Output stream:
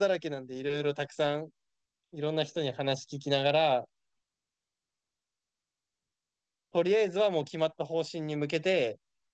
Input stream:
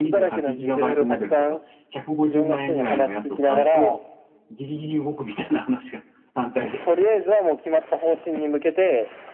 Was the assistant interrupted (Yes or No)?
Yes